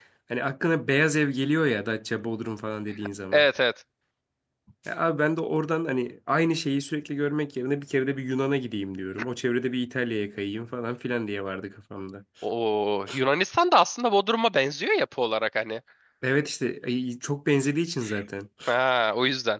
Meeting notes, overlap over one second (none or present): none